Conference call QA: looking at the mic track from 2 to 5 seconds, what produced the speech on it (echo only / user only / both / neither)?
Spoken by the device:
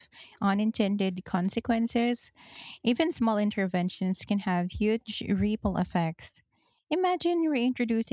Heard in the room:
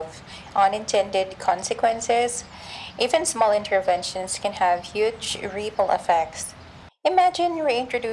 echo only